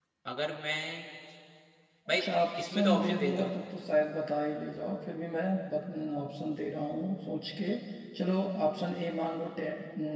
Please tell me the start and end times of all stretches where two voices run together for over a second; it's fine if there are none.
2.1-3.5

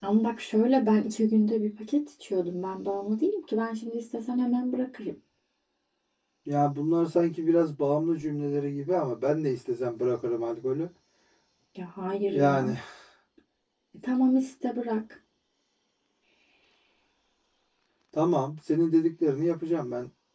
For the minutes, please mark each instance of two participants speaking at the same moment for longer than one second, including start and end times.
none

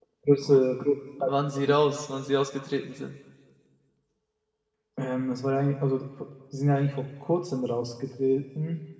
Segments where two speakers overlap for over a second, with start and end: none

